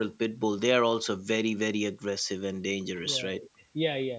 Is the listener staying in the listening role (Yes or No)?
No